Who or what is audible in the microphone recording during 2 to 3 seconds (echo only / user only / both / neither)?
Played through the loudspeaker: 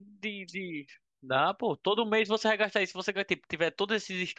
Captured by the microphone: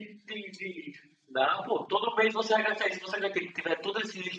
echo only